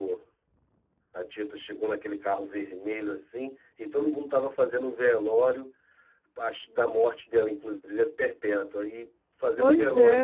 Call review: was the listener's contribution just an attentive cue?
Yes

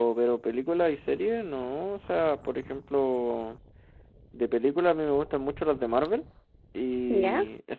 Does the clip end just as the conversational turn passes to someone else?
No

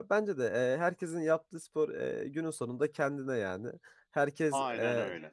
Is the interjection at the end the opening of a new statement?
No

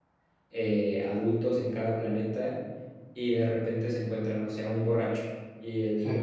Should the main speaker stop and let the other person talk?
No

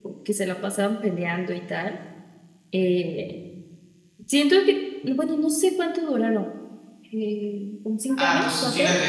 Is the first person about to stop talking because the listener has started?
Yes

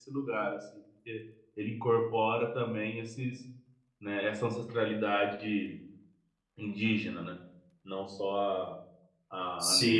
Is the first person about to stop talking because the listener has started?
Yes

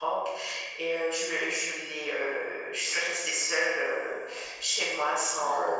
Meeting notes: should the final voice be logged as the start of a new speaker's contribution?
No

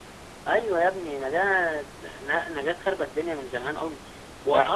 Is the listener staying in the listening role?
Yes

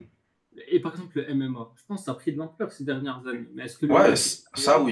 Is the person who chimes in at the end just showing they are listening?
No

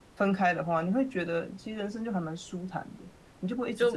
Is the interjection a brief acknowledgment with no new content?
No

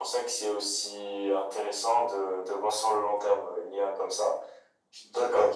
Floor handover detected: No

